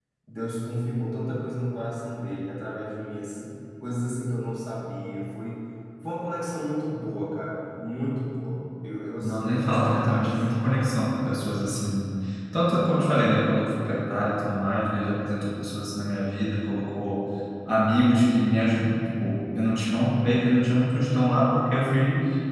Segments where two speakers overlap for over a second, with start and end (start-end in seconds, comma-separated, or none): 9.2-10.4